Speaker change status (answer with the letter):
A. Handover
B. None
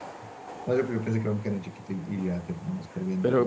A